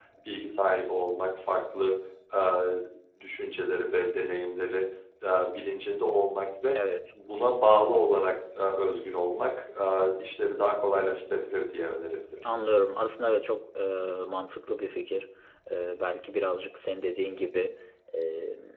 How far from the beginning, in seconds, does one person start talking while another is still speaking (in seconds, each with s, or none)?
none